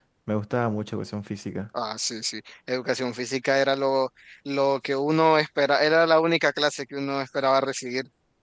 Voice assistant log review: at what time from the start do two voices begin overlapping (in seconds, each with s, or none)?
none